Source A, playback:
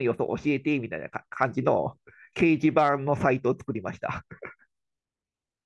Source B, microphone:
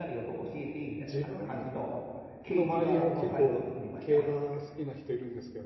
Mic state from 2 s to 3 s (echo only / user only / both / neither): both